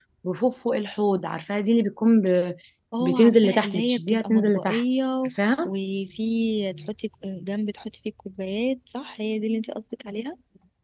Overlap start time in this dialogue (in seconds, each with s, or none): 3.0 s